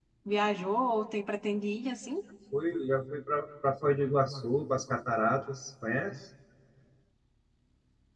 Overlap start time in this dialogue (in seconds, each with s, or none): none